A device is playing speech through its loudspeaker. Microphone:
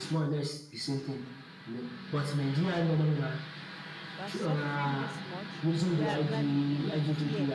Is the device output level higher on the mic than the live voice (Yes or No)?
Yes